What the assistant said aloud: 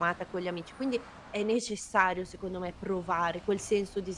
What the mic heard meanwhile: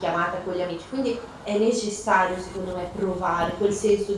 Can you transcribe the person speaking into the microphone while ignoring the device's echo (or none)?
none